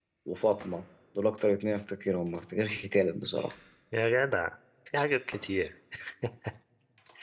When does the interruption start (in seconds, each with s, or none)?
none